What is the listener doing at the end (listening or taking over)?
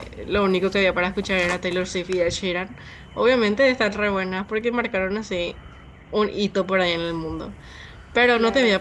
listening